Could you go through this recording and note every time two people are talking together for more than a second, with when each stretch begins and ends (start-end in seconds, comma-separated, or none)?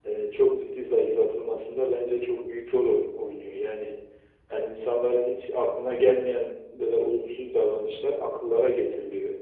none